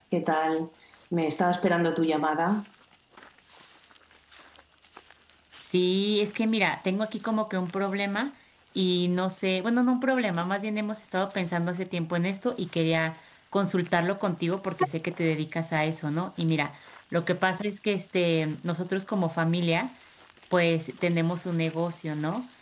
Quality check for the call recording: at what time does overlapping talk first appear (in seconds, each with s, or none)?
none